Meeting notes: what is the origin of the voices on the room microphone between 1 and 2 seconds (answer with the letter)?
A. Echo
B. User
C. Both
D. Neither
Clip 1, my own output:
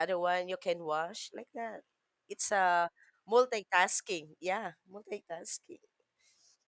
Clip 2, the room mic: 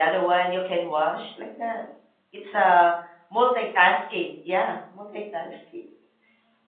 A